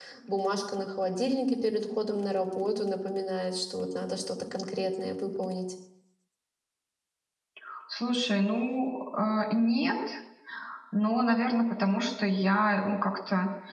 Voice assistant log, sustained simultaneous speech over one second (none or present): none